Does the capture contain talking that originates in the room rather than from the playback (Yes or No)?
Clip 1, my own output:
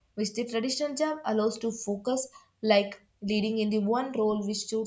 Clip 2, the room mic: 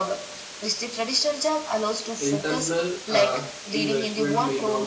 Yes